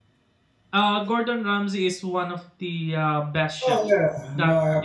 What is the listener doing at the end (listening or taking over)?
taking over